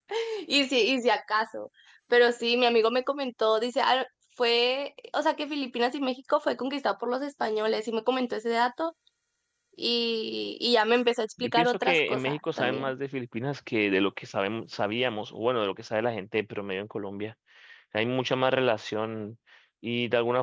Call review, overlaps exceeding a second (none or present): present